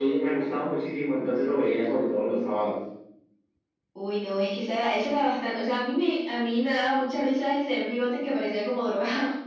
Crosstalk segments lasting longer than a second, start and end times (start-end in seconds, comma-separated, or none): none